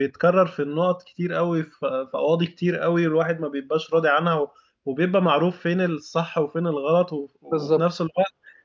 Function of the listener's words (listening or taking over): listening